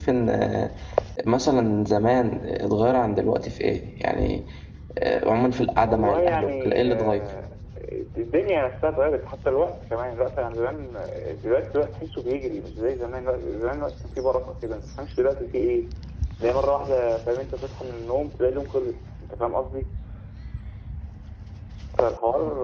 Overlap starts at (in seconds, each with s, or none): 5.9 s